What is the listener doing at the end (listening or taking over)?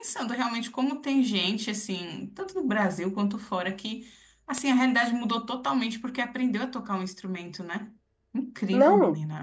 taking over